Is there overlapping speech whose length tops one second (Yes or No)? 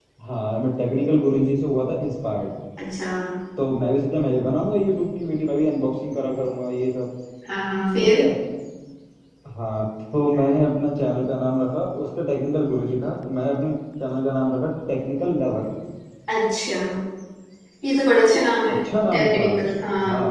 No